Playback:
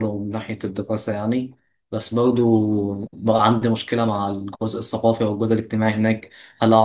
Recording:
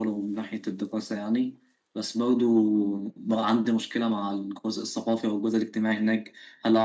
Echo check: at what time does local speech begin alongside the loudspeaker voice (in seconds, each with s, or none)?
none